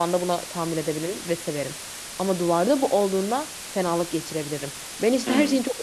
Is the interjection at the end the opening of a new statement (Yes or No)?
No